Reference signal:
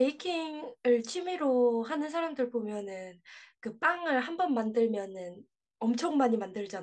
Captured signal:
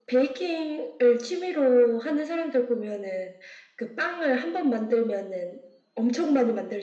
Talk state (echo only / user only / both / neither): echo only